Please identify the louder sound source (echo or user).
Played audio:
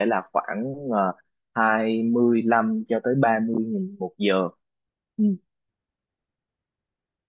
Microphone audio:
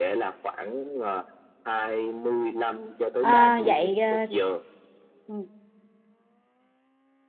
user